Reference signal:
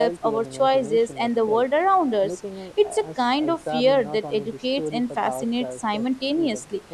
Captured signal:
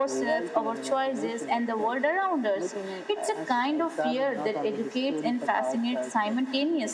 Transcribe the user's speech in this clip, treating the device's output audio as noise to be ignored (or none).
none